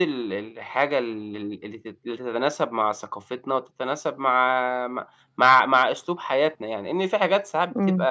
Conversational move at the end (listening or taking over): listening